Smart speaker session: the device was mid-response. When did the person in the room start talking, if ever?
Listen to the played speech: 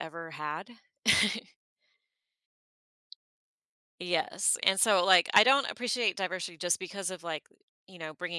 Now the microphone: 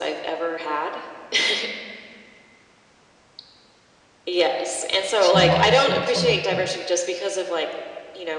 5.2 s

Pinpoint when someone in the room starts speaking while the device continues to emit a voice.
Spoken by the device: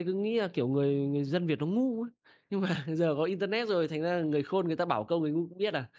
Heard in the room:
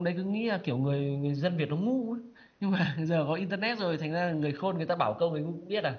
none

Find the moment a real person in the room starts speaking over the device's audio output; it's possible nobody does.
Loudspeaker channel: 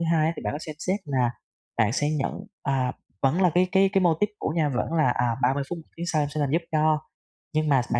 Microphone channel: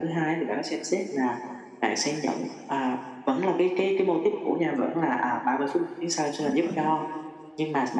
6.4 s

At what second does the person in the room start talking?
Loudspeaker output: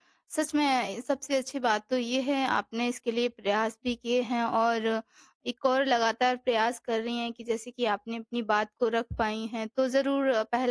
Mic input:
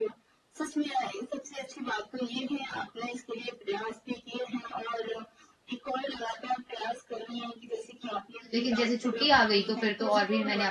8.5 s

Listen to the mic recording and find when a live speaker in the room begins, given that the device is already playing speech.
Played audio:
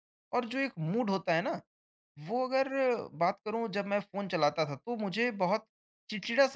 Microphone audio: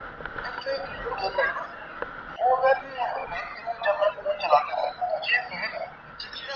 none

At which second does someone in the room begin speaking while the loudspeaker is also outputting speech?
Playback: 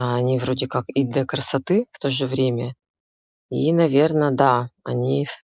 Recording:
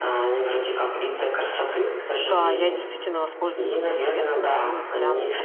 2.2 s

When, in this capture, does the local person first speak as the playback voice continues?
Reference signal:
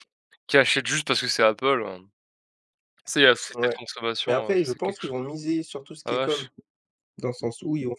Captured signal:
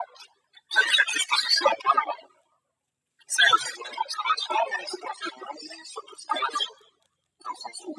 none

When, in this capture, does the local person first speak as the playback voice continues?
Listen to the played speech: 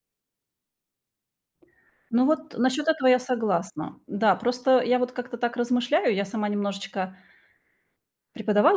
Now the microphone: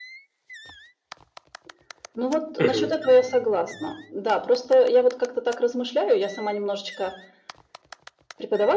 2.6 s

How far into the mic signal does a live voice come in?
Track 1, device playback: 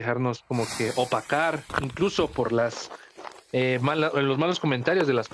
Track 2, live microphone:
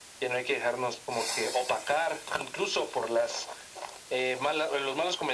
none

